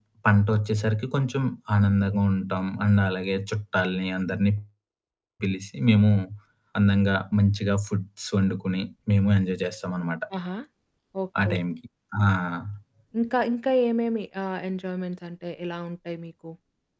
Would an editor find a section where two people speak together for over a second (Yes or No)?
No